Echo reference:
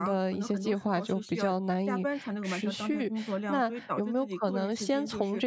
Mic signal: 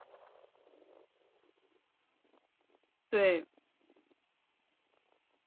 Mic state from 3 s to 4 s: user only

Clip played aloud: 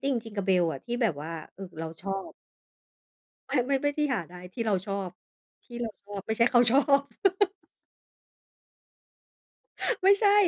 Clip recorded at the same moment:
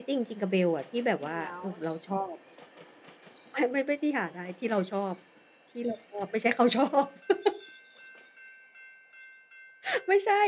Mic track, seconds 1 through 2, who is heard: both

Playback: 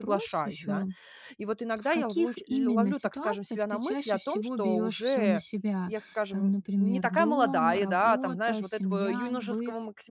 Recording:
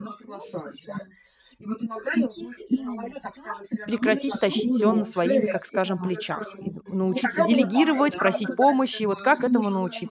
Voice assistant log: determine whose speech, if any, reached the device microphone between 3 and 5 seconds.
both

